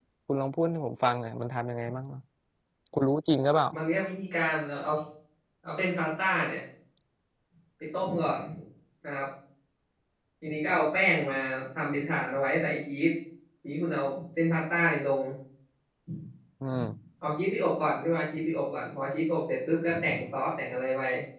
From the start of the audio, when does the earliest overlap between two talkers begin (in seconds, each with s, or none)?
none